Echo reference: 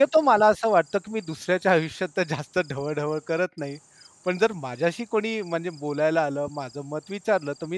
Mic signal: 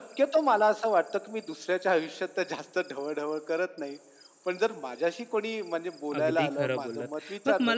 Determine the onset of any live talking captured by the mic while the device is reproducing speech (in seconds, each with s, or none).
6.2 s